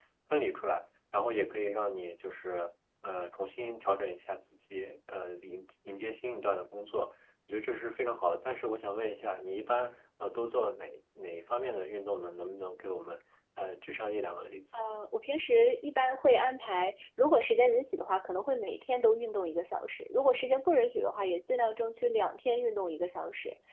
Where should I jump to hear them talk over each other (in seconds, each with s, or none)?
none